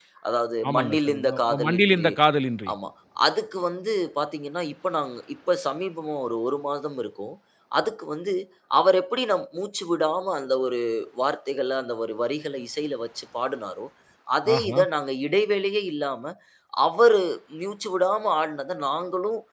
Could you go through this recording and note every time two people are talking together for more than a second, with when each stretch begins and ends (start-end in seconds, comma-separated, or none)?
0.7-2.1